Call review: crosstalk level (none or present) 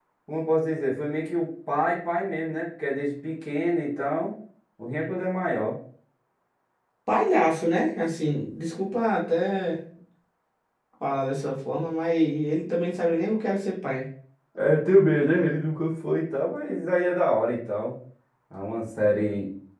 none